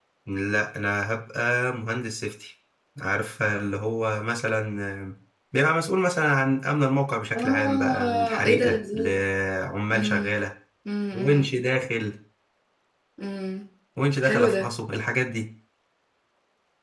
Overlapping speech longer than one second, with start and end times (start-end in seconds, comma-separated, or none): 7.3-9.2